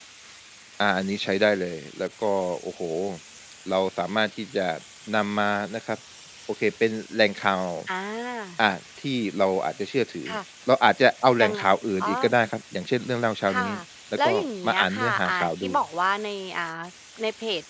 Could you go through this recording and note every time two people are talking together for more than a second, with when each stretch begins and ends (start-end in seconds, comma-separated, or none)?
14.2-15.7